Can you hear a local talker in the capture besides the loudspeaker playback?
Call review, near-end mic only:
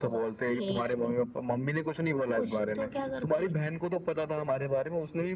No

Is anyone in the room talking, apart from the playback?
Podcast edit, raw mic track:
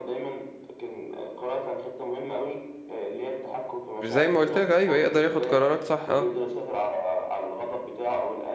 Yes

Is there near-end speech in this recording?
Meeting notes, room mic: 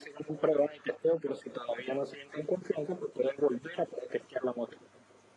No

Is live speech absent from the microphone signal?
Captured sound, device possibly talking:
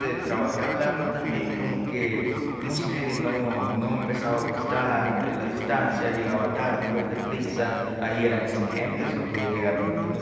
No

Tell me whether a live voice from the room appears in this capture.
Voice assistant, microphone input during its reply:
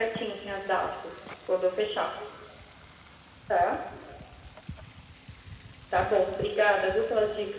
No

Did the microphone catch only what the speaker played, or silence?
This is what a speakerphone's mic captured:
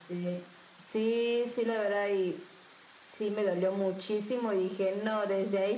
Yes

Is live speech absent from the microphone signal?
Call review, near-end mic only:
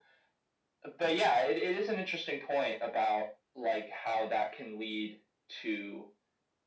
Yes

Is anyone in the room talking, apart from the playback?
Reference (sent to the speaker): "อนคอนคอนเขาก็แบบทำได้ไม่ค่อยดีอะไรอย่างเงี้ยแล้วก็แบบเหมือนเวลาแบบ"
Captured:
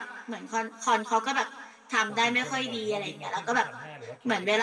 Yes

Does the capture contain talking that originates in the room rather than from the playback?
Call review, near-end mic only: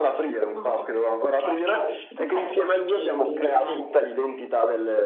No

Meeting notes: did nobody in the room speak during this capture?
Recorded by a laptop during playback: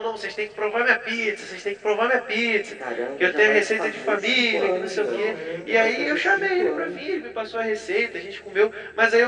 No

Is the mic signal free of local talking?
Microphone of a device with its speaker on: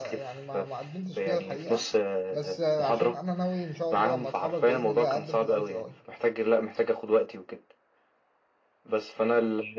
No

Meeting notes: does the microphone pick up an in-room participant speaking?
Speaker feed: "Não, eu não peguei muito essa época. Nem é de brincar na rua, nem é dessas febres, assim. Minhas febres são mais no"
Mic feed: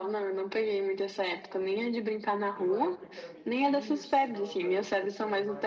Yes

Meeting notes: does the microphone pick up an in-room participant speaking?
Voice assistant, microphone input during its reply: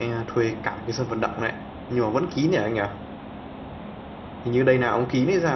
Yes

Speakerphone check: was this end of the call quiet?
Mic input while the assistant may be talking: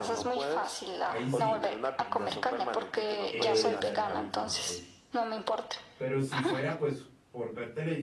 No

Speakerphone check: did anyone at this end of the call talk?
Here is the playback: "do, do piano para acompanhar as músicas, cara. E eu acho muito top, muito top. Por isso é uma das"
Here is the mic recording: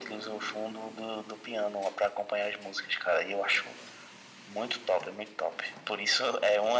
No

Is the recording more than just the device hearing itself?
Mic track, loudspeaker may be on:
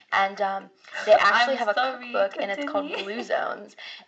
No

